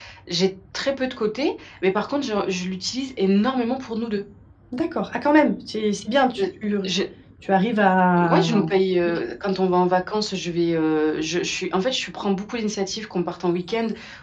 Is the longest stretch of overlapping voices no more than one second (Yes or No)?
Yes